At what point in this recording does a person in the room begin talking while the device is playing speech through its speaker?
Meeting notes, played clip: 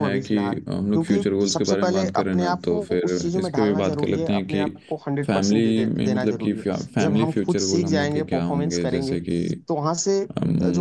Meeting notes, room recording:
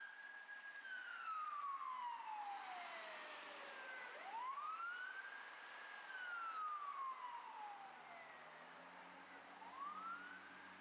none

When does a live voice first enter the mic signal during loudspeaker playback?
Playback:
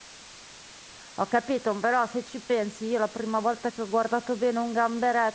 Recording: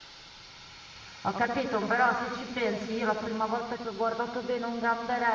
none

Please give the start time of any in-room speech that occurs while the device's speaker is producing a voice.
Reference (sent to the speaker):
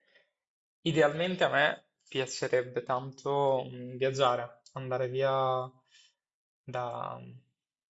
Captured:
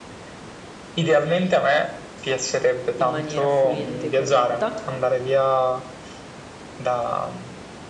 3.0 s

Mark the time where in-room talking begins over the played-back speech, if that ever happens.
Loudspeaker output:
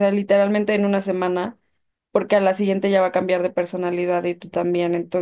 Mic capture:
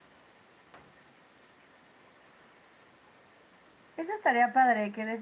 4.0 s

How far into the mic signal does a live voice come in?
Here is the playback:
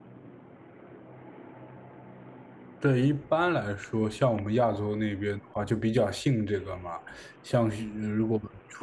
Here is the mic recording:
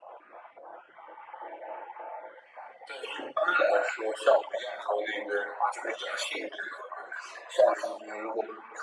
none

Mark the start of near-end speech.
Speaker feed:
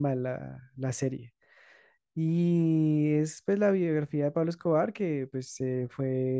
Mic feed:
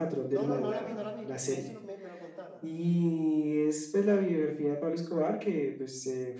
0.3 s

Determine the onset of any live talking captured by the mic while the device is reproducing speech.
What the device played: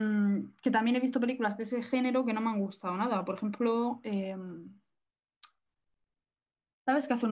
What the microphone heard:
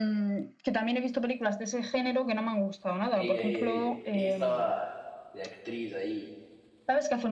3.1 s

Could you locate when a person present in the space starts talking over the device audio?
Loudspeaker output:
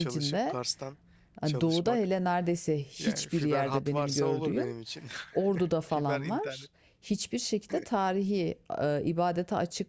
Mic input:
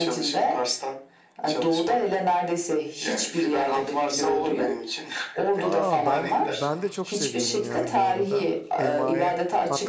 5.6 s

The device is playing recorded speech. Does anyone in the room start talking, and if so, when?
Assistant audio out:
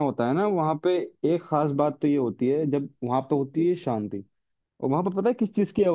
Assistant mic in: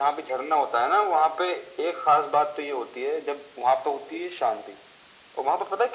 none

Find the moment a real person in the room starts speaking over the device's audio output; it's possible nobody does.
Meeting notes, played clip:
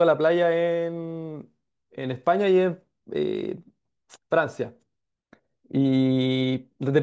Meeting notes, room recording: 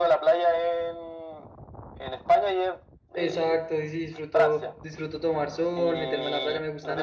3.1 s

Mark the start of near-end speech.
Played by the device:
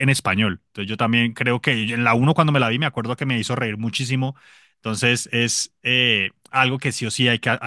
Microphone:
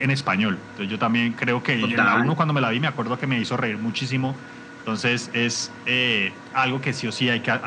1.8 s

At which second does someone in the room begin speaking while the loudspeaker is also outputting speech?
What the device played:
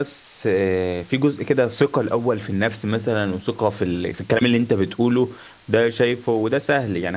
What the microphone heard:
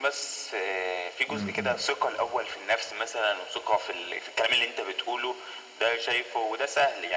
1.3 s

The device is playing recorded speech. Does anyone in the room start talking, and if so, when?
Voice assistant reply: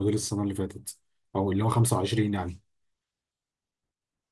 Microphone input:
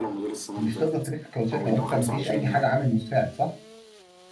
0.6 s

